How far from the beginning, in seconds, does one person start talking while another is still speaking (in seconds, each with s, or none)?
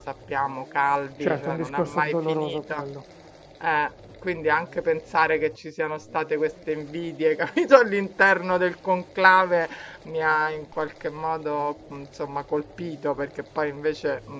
1.2 s